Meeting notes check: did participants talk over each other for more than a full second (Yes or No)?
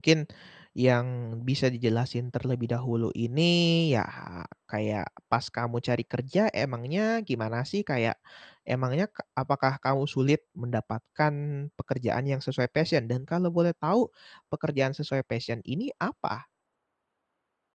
No